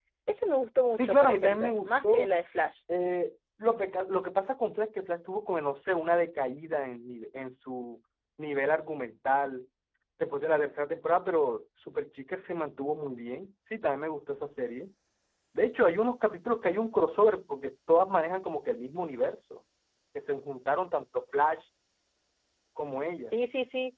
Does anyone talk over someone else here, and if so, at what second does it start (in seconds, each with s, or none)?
0.9 s